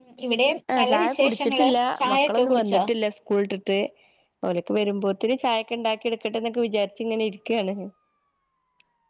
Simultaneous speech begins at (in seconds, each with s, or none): 0.8 s